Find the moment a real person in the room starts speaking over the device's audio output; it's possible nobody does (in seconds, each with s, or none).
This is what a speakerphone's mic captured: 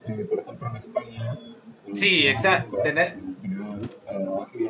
1.9 s